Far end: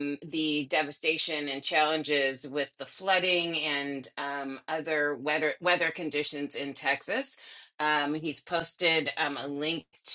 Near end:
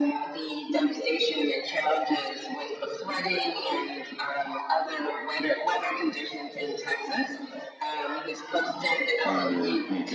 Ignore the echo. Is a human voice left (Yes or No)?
Yes